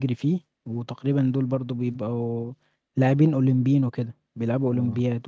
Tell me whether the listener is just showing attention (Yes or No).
No